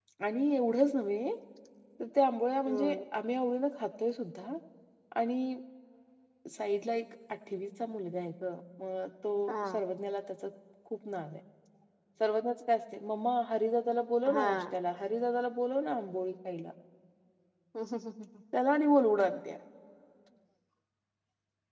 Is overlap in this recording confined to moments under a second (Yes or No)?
Yes